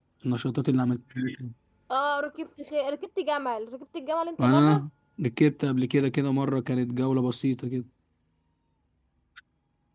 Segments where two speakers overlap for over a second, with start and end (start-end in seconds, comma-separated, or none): none